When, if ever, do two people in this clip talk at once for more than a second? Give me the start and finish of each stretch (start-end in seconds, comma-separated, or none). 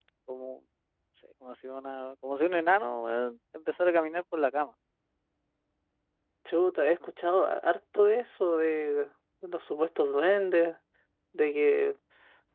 none